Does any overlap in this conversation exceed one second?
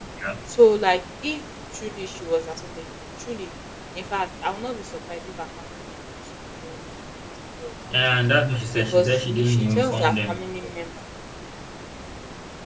Yes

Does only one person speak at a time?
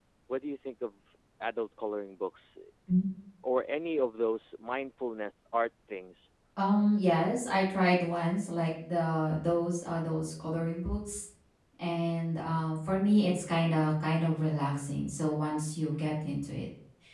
Yes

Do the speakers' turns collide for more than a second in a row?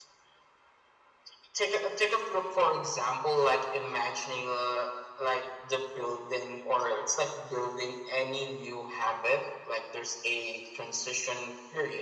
No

